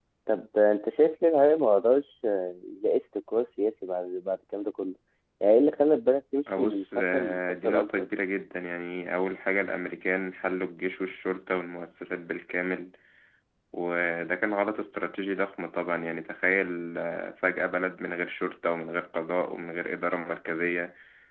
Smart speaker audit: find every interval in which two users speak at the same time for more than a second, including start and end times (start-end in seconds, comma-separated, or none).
6.6-8.1